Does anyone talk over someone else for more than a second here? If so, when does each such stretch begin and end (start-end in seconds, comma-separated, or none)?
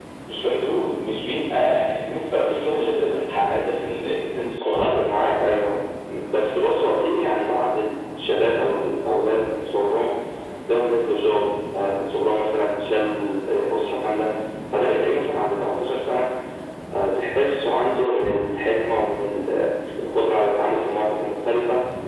none